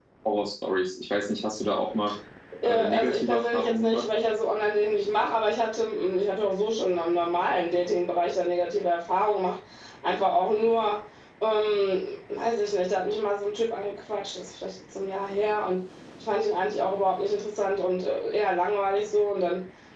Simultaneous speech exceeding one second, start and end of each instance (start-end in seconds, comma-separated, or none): 2.7-4.0